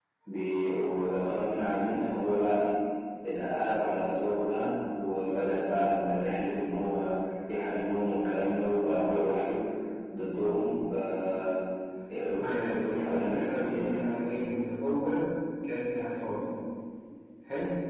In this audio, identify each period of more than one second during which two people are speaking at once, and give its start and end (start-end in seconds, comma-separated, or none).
12.4-14.0